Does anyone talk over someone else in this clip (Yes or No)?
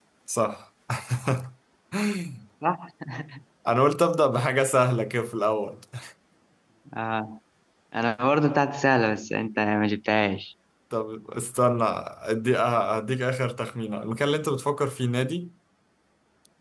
No